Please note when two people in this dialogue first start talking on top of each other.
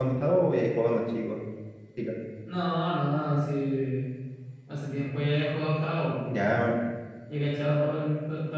none

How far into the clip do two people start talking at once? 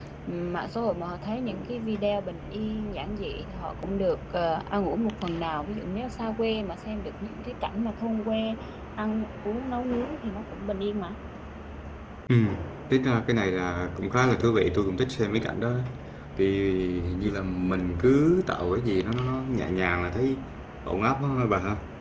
none

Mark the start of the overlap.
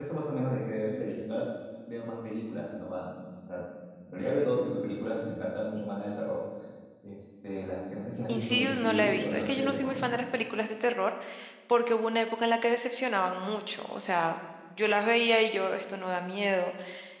8.3 s

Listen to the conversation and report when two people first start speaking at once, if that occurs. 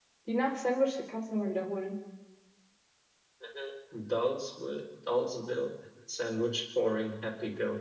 none

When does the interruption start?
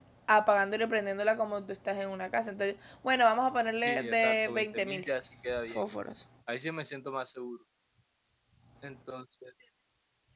3.8 s

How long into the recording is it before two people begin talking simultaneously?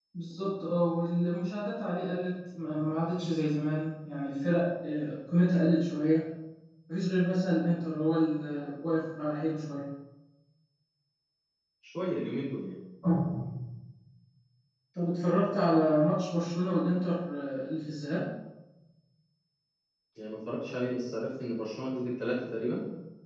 none

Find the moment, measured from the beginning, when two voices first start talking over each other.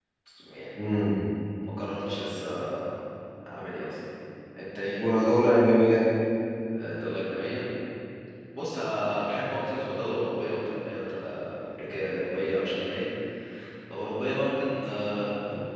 none

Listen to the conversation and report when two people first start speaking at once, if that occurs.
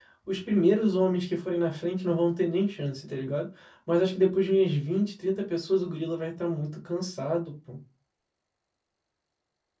none

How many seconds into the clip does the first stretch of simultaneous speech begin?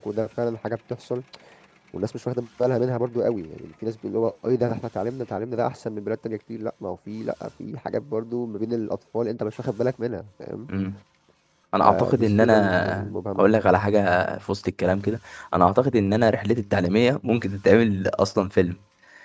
11.8 s

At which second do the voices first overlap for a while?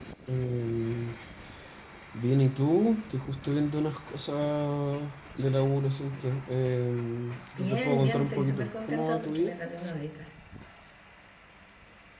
7.6 s

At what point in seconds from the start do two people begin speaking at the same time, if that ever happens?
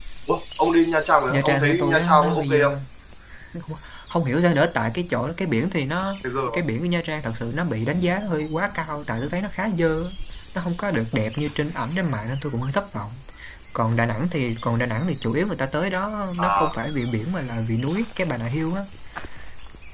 1.3 s

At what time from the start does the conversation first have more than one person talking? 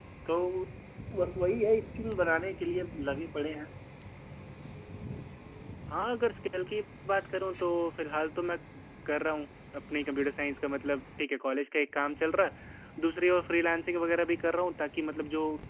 none

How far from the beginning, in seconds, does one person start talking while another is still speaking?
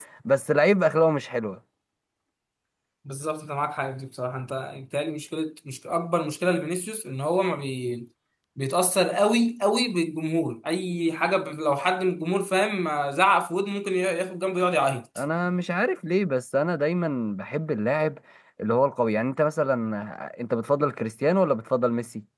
none

